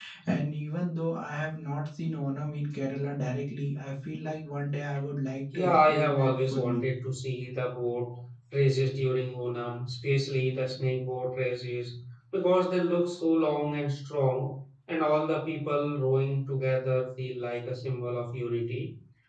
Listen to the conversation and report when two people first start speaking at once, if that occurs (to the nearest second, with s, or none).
6 s